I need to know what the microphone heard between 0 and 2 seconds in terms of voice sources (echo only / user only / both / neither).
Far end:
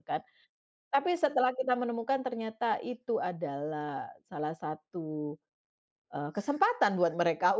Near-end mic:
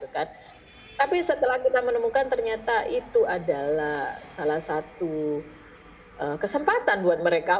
echo only